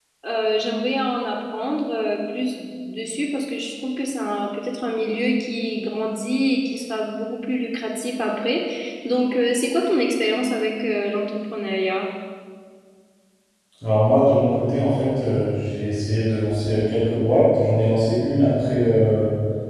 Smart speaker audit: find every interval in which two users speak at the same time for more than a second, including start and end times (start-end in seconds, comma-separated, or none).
none